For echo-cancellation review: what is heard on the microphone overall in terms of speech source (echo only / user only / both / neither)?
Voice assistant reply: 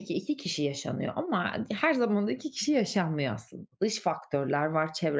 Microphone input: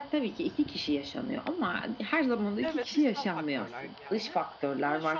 both